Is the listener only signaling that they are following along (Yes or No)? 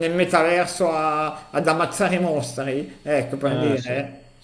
Yes